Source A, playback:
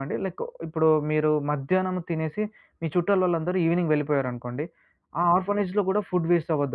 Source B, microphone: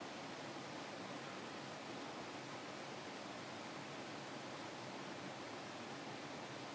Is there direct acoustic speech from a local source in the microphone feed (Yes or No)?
No